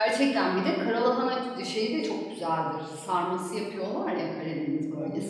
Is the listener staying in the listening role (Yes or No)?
No